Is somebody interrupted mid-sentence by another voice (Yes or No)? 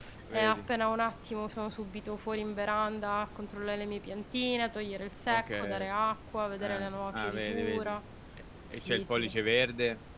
Yes